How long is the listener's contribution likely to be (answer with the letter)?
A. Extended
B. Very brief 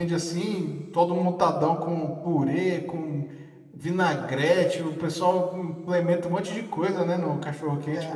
A